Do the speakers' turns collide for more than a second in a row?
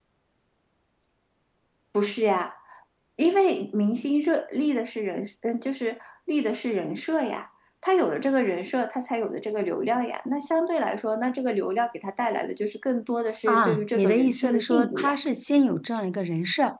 Yes, from 13.5 s

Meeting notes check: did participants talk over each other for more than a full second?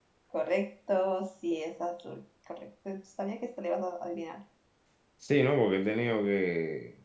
No

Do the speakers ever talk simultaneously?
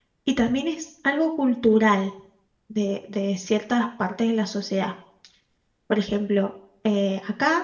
No

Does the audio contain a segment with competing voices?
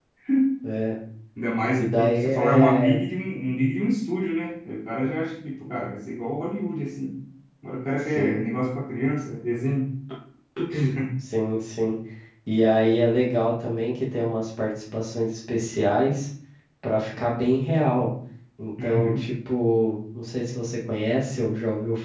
Yes, from 1.8 s

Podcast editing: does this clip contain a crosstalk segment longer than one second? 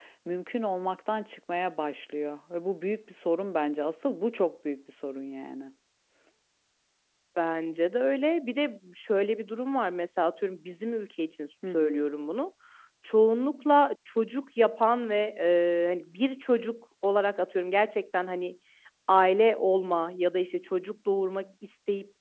No

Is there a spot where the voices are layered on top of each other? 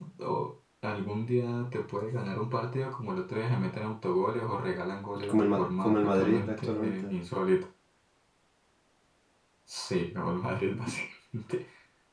Yes, from 5.1 s

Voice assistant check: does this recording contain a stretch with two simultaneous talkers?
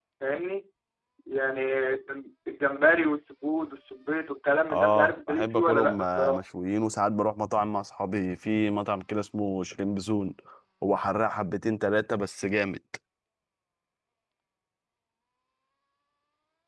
Yes, from 4.7 s

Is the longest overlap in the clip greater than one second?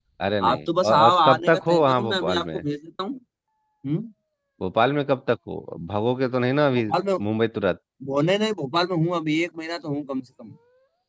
Yes, from 0.5 s

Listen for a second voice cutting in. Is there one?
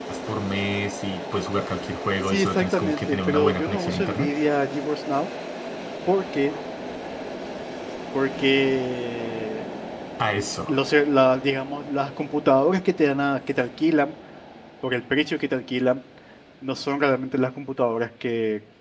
Yes, from 2.2 s

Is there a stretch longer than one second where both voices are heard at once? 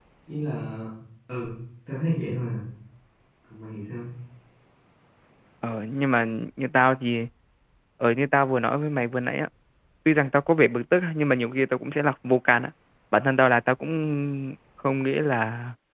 No

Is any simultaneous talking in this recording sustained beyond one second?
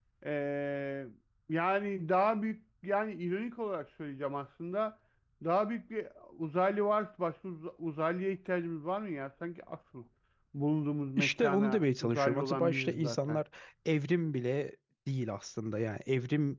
Yes, from 11.2 s

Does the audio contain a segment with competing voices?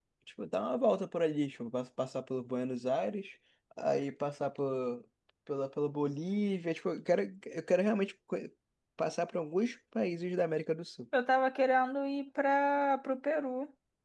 No

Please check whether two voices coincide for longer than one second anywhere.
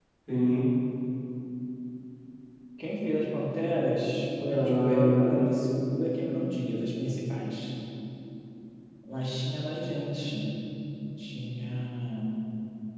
Yes, from 4.5 s

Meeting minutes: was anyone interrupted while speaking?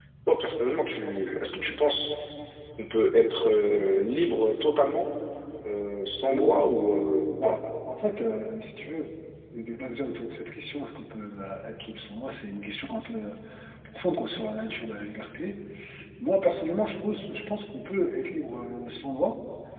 Yes, from 6.2 s

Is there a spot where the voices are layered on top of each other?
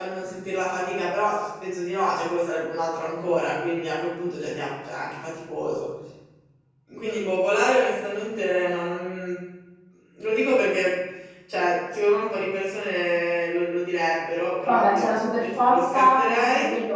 Yes, from 14.7 s

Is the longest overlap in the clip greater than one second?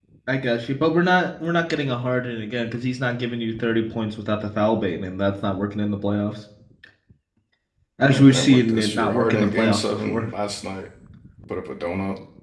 Yes, from 8.1 s

